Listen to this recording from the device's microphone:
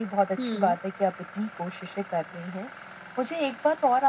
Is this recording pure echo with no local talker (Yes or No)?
No